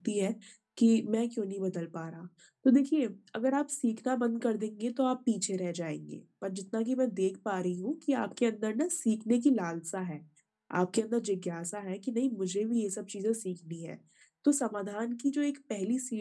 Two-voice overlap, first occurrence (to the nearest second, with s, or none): none